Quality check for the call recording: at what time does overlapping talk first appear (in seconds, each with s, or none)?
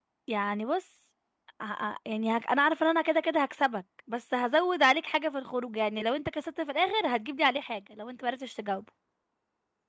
none